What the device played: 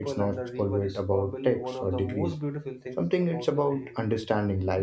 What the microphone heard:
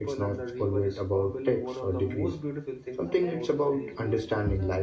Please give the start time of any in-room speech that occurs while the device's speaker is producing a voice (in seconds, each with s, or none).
3.0 s